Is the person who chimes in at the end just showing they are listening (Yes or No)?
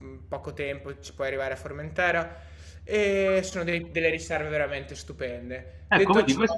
No